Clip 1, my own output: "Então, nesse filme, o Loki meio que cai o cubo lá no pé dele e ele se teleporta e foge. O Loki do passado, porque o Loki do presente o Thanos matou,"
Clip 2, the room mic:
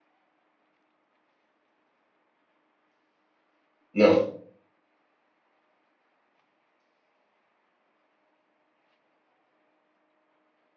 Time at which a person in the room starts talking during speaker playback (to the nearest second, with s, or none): 4 s